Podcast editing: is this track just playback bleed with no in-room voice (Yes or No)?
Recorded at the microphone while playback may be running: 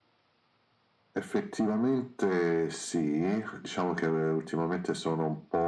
Yes